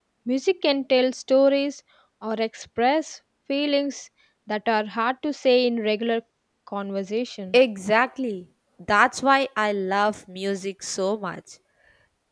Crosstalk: none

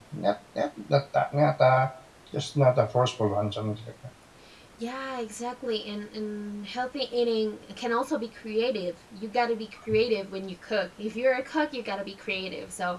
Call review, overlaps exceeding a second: none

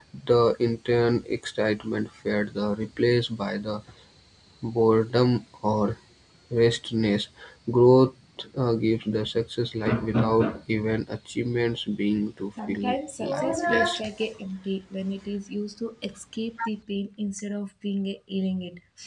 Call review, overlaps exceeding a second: present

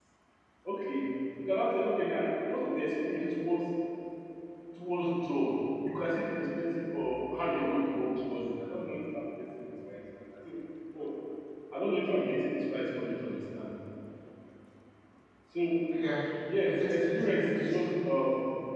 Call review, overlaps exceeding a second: present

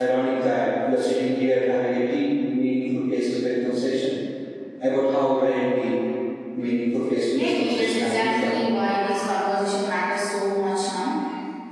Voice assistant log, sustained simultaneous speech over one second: present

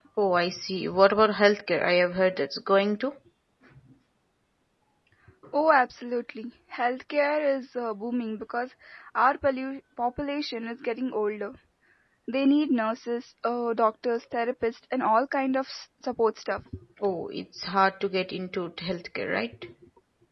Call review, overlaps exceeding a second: none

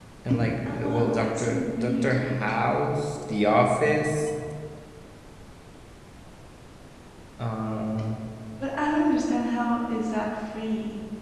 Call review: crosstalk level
present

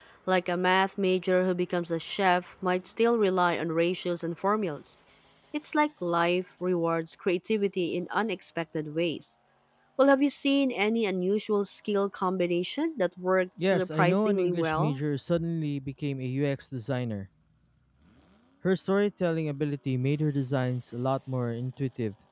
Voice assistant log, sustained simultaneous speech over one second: present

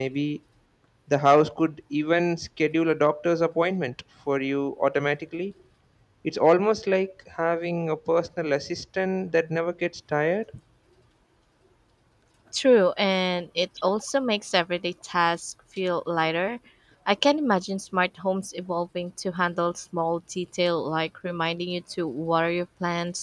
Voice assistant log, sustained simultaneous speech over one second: none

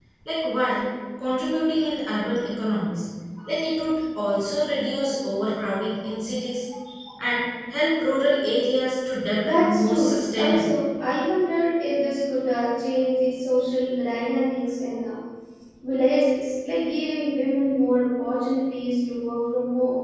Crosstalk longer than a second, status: present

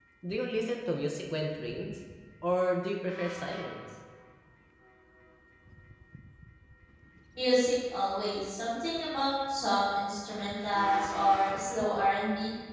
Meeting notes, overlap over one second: none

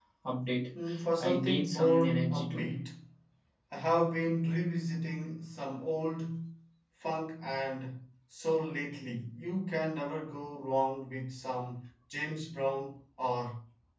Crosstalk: present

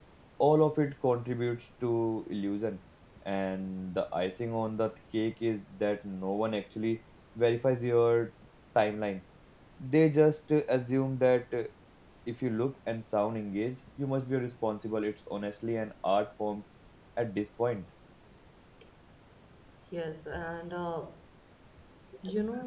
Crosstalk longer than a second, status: none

